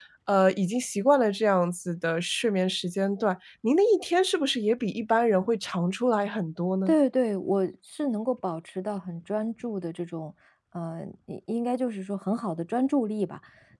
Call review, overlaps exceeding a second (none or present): none